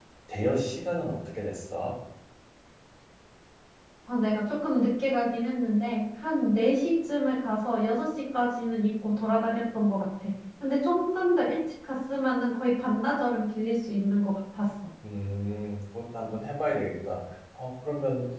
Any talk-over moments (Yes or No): No